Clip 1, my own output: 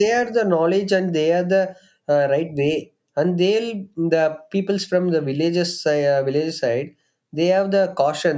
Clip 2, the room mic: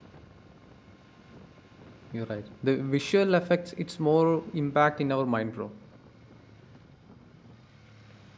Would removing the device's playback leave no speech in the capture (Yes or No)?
No